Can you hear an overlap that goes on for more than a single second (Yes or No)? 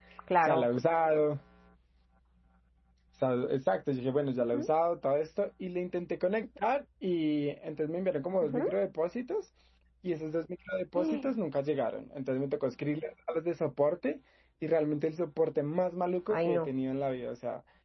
No